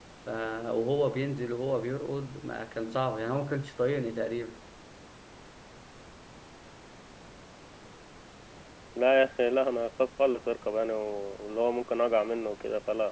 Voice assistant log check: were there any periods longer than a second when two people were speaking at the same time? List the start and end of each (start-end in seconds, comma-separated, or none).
none